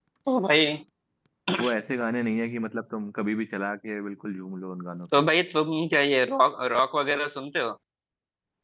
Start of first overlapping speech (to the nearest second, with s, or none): none